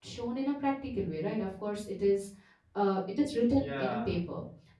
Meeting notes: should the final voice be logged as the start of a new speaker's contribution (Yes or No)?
No